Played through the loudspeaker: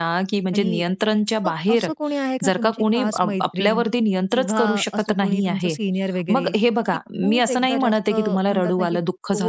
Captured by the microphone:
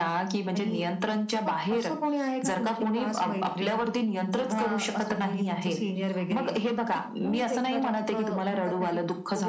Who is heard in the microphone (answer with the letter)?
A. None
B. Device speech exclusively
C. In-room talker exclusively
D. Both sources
B